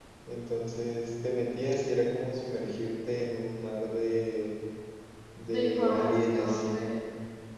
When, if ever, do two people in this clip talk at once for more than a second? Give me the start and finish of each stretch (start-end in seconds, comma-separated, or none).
5.5-6.9